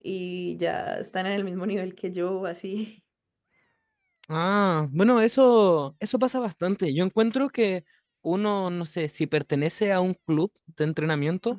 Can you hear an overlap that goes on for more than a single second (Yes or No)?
No